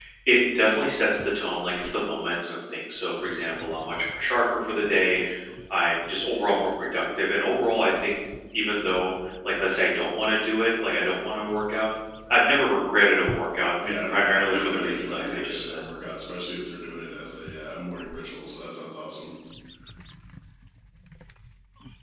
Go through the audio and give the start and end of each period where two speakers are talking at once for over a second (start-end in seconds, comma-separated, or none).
13.8-15.8